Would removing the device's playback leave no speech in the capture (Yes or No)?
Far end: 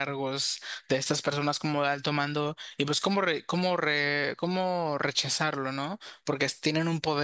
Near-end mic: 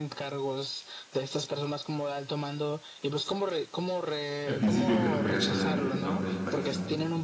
No